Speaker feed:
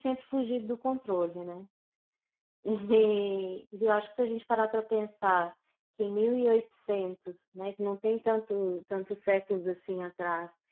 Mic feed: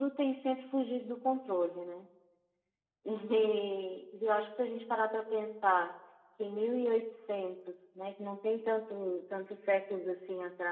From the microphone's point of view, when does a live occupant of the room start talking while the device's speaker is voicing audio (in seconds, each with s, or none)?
none